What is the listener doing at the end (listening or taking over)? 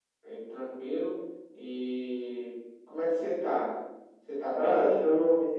taking over